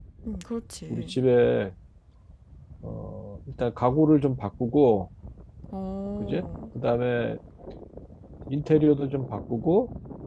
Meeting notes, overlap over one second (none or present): none